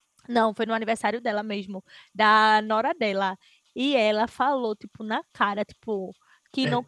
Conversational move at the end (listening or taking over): listening